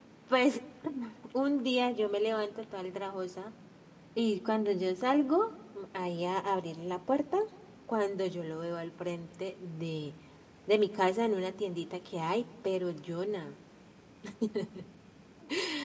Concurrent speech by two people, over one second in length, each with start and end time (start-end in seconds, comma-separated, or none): none